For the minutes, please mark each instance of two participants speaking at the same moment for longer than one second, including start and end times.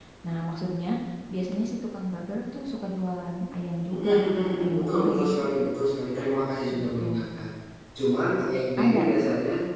3.9-5.3

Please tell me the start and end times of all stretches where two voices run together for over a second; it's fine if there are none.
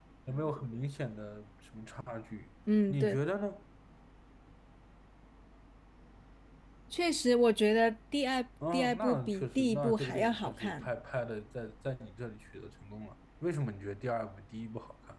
8.7-10.9

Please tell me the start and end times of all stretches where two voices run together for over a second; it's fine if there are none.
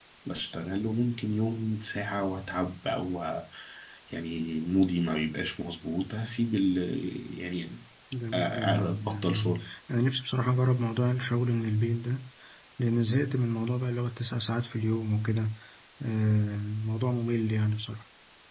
8.3-9.6

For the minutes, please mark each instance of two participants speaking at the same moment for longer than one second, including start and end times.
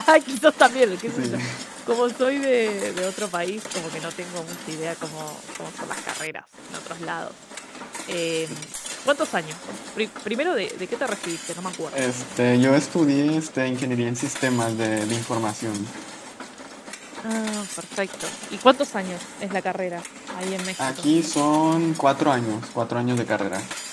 none

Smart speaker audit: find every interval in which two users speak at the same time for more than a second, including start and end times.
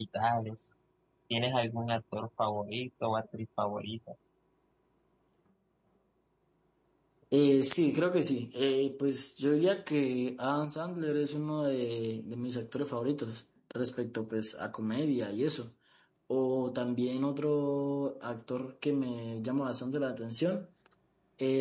none

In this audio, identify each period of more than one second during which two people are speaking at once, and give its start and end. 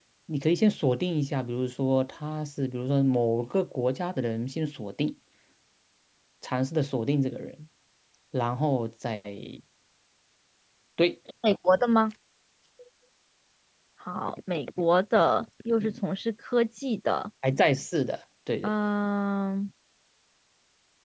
none

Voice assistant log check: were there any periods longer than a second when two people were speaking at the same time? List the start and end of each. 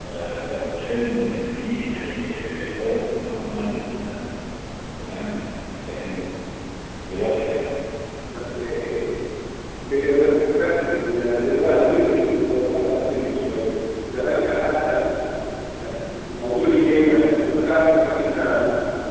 none

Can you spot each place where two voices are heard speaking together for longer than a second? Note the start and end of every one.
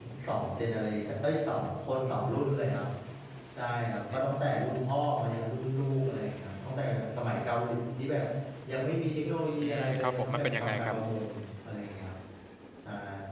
9.6-10.9

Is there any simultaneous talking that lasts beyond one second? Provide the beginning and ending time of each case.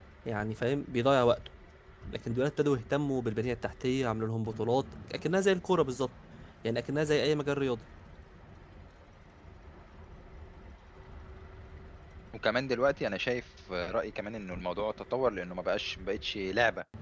none

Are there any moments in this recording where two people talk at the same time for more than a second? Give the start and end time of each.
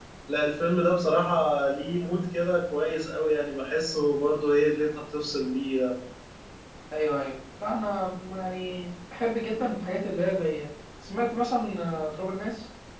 none

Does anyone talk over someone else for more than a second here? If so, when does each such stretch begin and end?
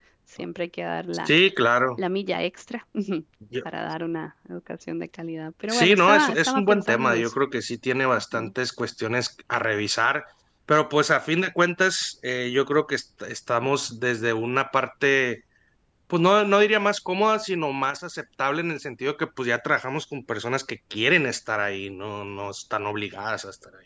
5.7-7.3

